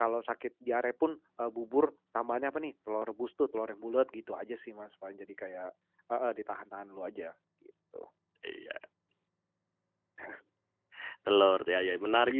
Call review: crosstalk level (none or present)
none